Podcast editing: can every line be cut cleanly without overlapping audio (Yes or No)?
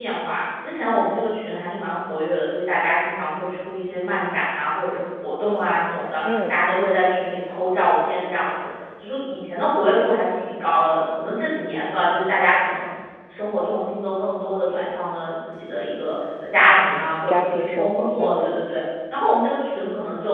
No